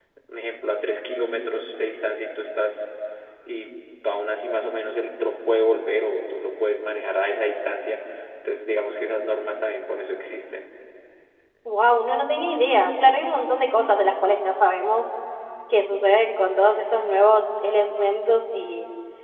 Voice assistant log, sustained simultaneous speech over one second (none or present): none